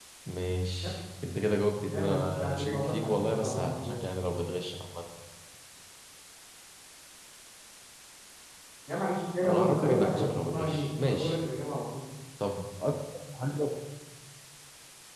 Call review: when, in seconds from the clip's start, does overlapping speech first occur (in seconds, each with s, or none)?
1.9 s